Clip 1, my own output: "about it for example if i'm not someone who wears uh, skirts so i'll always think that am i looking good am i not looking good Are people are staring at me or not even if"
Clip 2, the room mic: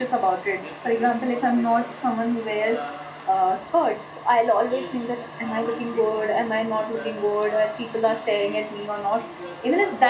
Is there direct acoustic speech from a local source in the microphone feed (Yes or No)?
Yes